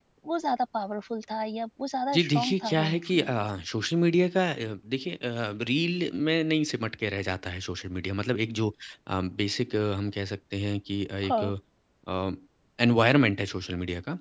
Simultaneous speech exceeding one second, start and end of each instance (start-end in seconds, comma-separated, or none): 2.1-3.4